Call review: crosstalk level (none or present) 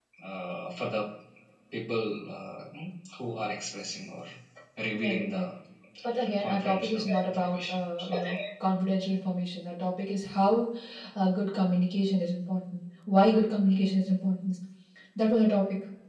present